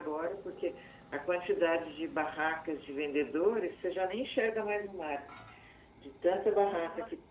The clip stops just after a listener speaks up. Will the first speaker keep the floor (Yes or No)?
Yes